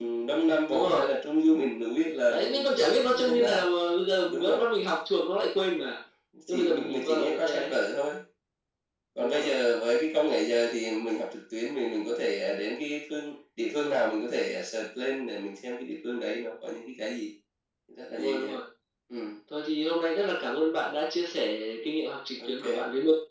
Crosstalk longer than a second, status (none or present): present